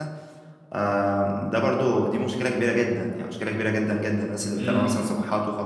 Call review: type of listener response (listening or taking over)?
listening